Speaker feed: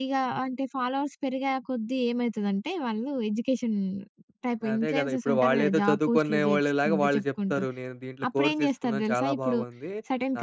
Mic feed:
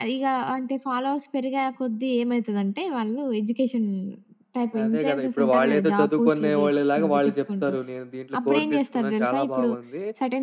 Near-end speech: present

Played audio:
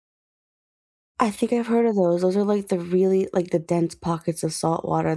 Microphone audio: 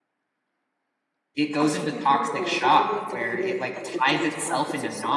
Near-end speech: present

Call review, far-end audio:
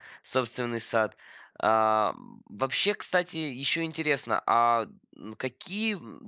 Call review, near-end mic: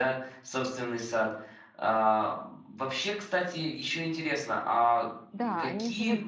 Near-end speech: present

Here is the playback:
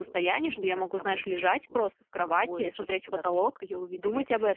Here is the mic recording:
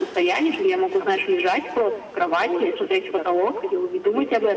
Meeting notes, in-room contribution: none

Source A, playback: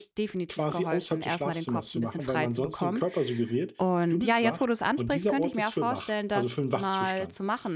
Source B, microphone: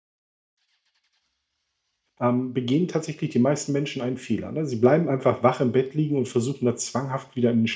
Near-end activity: present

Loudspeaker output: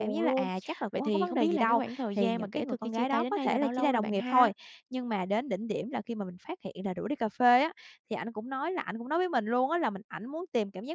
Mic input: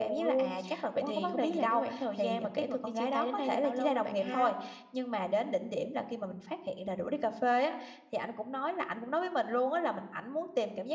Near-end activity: none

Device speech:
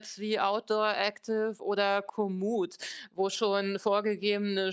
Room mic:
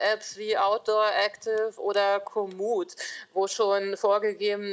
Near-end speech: none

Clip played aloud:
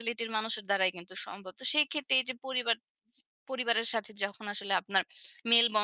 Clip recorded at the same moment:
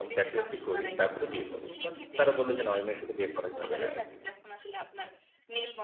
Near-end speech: present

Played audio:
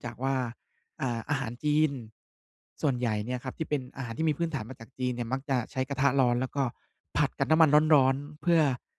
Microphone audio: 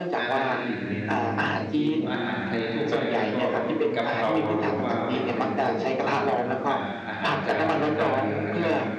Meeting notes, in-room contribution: present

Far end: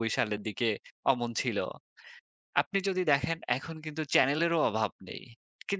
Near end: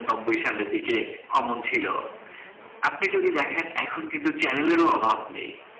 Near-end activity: none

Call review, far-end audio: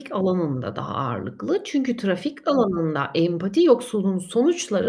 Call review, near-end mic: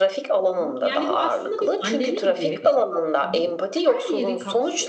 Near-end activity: present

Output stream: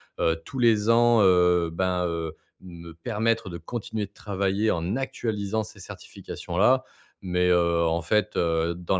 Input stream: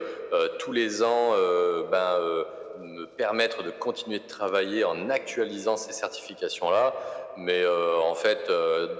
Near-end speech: none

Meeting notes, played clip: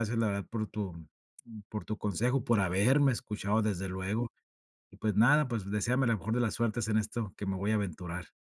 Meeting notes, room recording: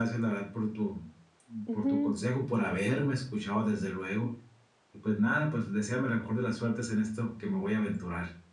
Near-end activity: present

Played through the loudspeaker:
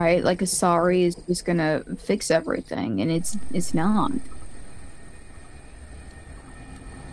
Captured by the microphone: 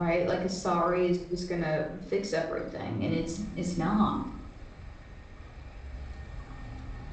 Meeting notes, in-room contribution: none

